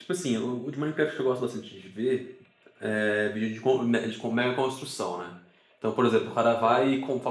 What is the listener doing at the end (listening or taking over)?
listening